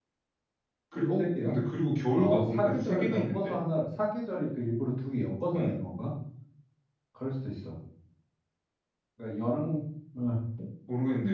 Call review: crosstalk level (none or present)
present